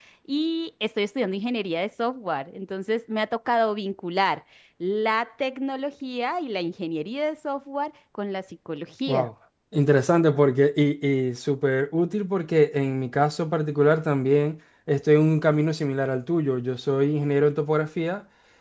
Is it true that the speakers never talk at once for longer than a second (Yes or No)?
Yes